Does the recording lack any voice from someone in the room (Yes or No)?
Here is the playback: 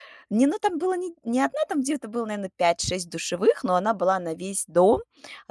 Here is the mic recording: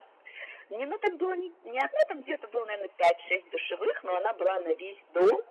Yes